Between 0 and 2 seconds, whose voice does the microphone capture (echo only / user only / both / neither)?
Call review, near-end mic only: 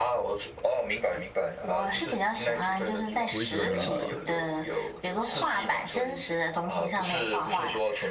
echo only